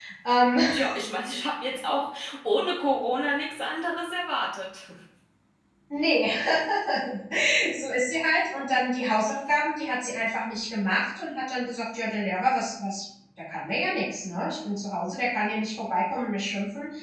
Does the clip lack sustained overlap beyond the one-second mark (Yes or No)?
Yes